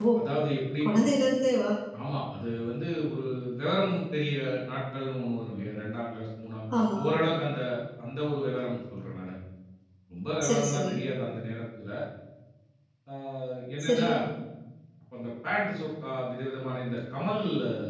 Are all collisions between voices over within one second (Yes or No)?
Yes